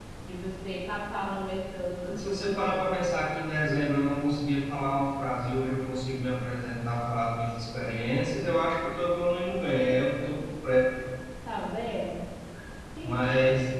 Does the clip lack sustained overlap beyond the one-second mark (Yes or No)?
Yes